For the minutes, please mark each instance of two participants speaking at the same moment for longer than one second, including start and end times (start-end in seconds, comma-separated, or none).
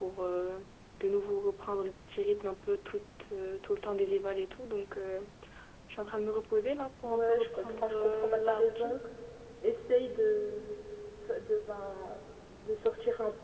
7.0-8.9